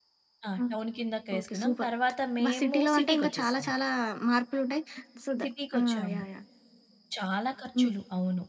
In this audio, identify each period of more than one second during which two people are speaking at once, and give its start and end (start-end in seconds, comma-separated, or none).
2.4-3.7